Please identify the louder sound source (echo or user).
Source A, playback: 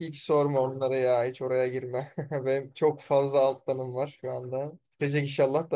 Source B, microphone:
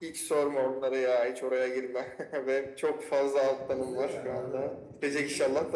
echo